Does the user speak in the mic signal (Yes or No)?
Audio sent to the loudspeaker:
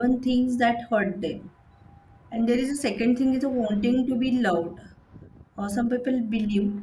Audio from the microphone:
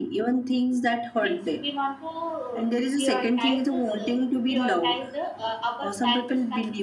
Yes